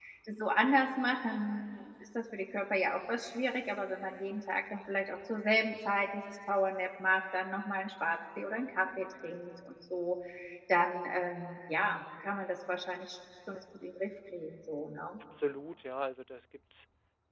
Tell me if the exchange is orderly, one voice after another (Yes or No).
Yes